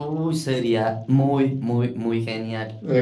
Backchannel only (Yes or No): No